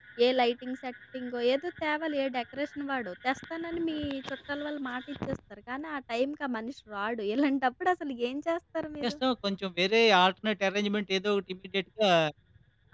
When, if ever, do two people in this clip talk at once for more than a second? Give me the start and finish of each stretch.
none

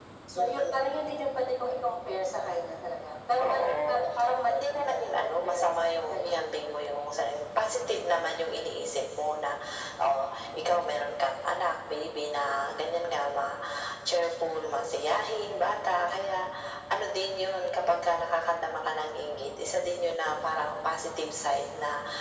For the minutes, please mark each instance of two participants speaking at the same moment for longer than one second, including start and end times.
4.5-5.7

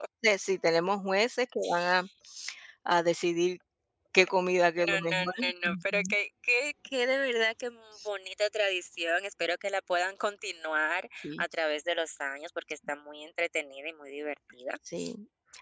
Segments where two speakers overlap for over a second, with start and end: 4.9-6.1

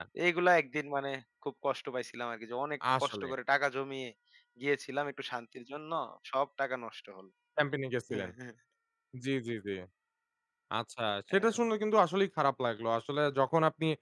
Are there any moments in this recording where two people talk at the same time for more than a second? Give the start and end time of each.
none

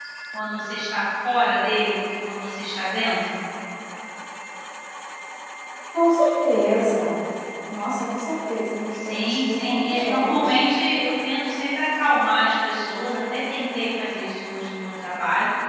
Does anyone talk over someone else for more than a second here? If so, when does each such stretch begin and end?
9.0-10.5

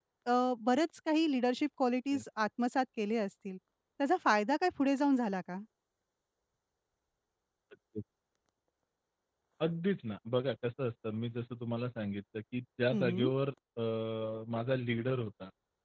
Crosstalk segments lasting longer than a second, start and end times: none

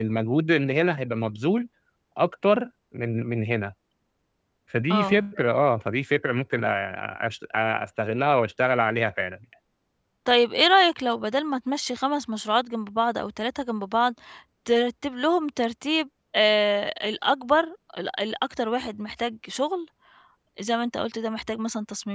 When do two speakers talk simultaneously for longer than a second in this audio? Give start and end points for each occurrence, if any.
none

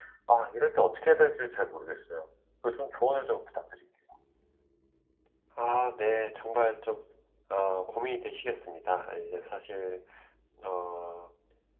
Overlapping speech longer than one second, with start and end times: none

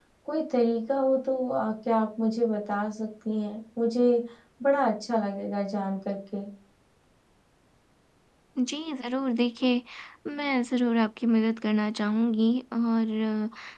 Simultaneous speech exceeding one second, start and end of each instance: none

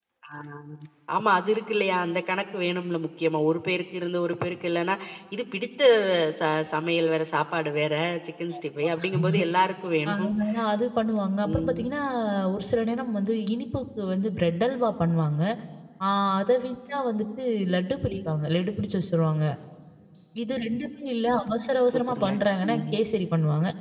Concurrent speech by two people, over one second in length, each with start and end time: none

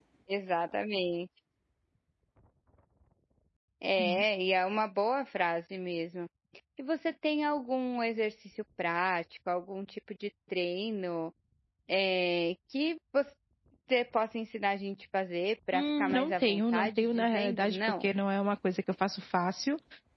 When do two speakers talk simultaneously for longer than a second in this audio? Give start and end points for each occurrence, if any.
15.7-18.0

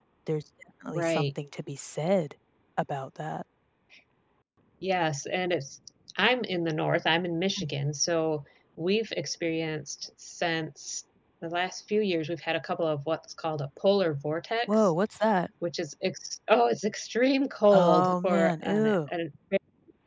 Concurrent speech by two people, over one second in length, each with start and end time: 17.7-19.1

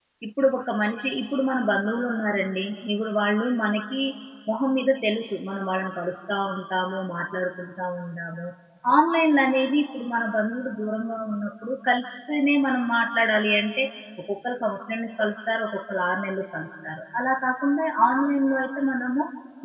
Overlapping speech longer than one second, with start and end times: none

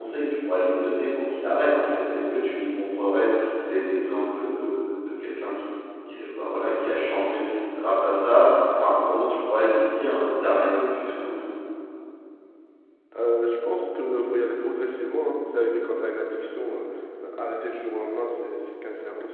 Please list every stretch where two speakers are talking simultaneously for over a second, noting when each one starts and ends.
none

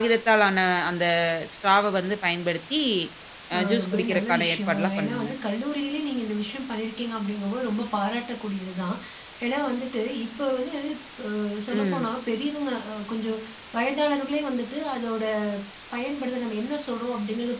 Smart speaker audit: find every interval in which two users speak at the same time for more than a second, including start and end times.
3.6-5.3

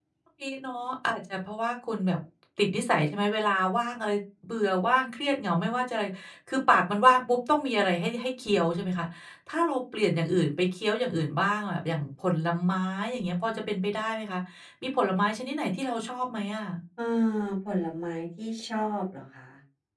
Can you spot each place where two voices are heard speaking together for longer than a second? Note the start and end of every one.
none

